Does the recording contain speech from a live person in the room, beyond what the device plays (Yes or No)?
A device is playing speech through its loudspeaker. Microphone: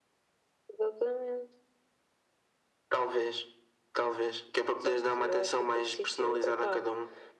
No